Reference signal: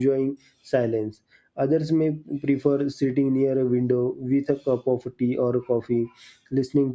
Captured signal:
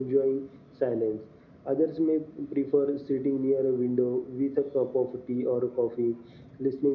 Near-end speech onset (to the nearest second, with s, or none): none